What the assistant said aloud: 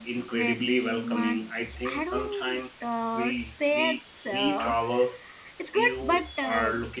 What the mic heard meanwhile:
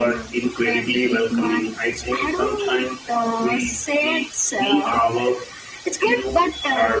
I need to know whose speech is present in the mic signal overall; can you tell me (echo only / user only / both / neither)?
echo only